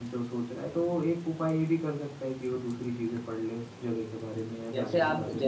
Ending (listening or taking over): taking over